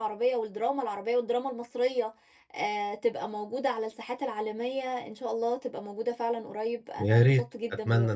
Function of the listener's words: taking over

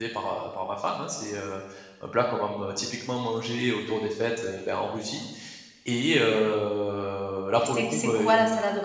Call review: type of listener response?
taking over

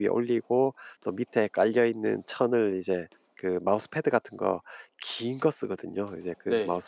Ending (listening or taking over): listening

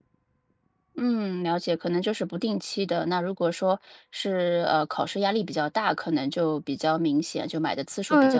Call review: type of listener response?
taking over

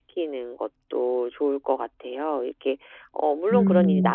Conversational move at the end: listening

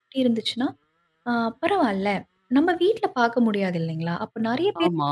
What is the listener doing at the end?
listening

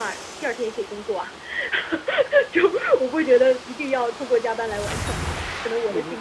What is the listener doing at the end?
taking over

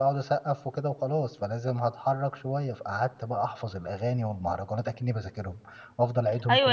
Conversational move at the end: taking over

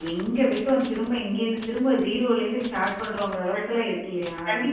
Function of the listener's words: taking over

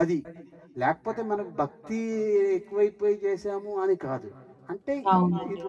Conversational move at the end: listening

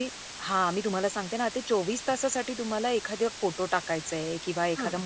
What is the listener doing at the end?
listening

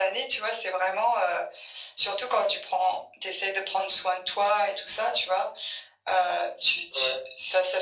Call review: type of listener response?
listening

